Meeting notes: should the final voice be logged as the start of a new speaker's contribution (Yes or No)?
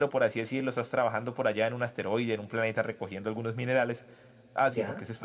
No